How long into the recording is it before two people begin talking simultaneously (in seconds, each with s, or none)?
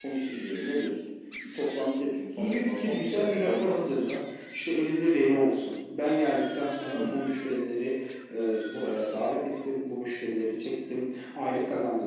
2.4 s